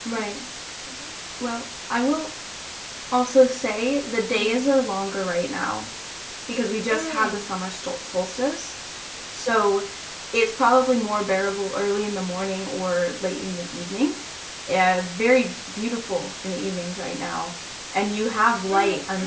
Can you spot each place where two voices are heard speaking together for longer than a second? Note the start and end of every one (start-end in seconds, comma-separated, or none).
none